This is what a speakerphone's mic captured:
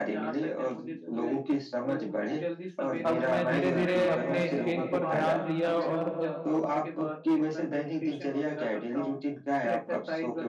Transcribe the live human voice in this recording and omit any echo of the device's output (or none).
अब मैं धीरे धीरे अपने स्केल पर ध्यान दिया और